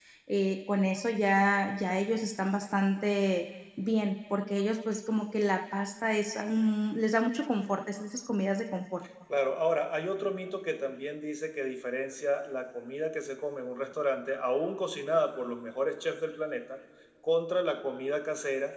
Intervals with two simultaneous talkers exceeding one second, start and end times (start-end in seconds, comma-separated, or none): none